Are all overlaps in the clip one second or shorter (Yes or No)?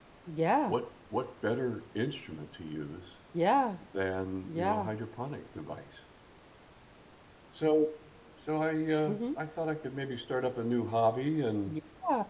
Yes